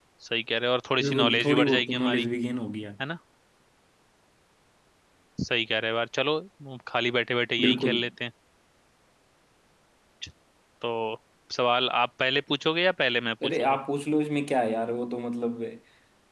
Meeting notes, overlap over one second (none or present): present